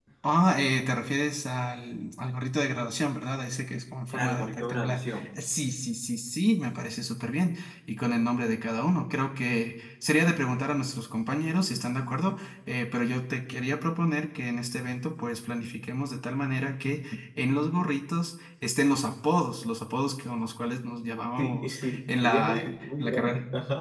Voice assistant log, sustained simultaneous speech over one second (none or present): present